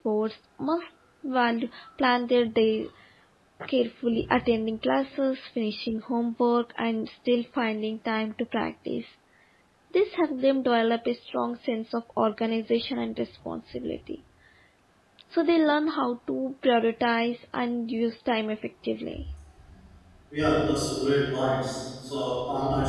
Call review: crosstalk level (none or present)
none